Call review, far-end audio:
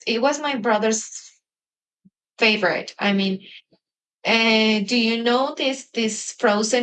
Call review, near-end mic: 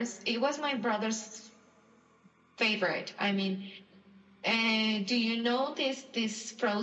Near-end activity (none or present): none